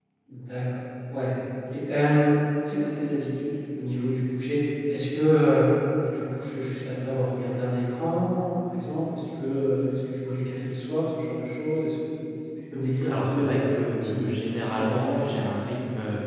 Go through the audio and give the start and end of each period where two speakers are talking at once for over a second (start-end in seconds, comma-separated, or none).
13.1-15.7